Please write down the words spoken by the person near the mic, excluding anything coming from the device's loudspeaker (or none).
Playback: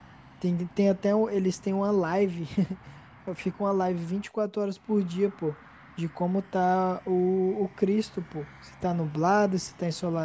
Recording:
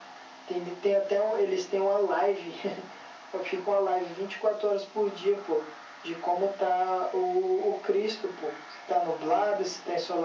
none